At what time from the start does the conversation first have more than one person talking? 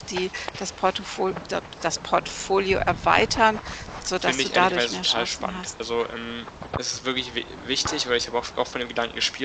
4.2 s

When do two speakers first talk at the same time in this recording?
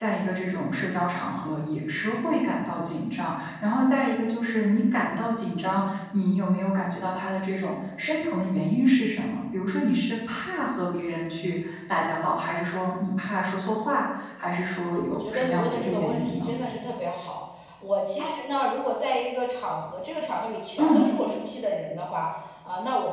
15.1 s

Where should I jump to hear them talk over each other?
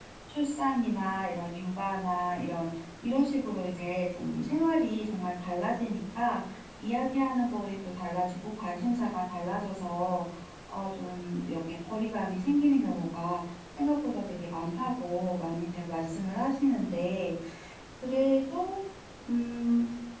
none

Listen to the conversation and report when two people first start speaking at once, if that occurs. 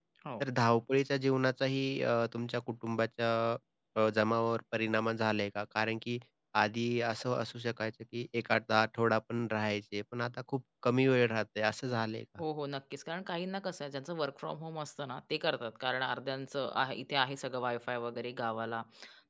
none

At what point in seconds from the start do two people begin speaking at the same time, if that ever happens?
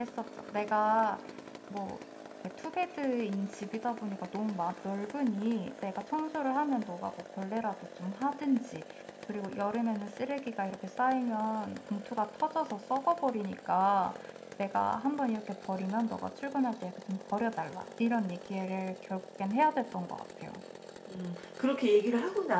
none

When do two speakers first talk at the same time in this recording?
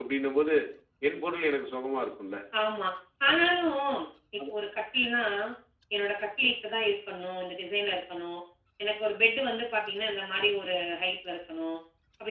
none

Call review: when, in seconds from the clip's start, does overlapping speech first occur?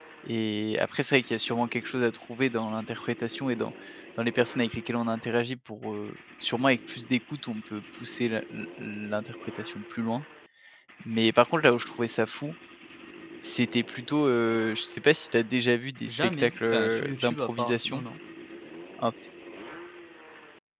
16.1 s

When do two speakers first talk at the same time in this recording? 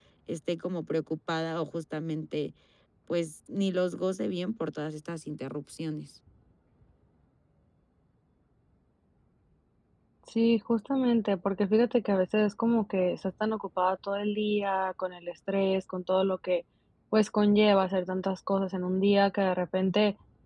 none

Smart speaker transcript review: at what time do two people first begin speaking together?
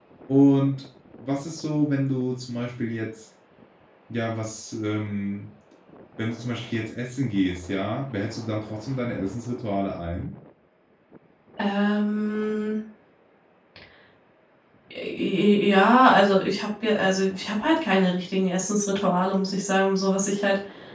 none

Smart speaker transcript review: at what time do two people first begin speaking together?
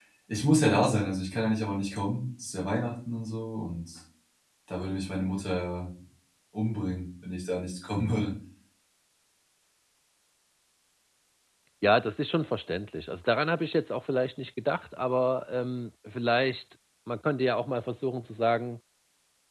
none

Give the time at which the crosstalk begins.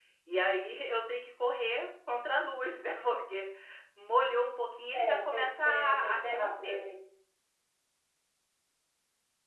4.9 s

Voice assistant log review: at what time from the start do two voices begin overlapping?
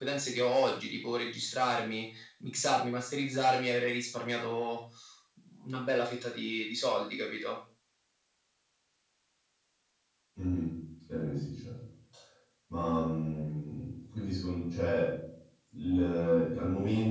none

